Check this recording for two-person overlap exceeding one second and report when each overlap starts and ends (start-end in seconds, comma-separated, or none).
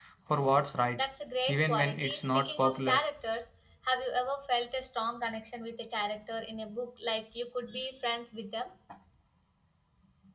1.5-3.0